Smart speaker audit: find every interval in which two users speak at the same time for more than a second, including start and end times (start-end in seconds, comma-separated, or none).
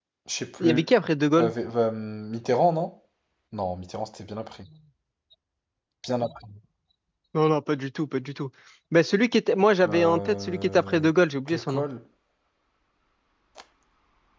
9.8-11.1